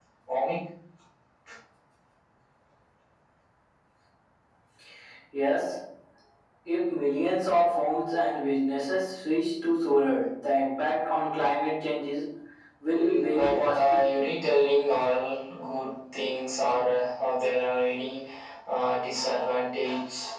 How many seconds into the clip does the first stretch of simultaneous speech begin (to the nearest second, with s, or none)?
13 s